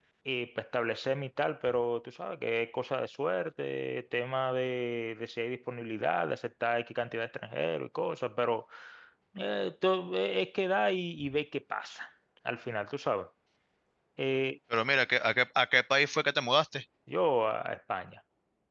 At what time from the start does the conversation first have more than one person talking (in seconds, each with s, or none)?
none